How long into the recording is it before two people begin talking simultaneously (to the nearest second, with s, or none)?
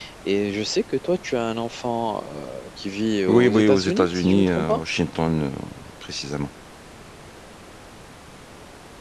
3 s